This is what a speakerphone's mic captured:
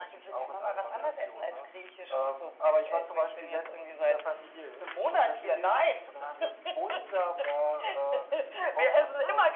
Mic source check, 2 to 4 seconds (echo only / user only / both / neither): echo only